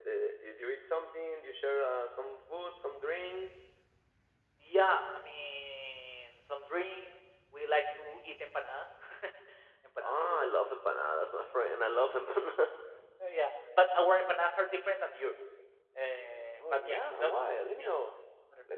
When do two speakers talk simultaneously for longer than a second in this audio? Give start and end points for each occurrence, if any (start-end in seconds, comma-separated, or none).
16.7-17.9